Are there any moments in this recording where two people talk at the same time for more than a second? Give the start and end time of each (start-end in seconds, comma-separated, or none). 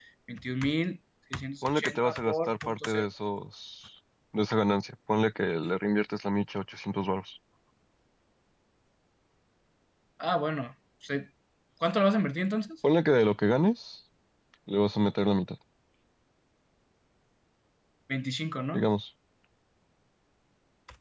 1.6-3.0